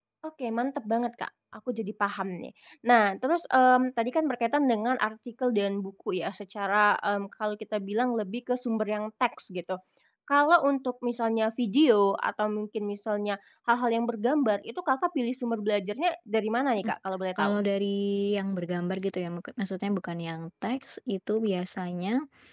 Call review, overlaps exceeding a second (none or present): none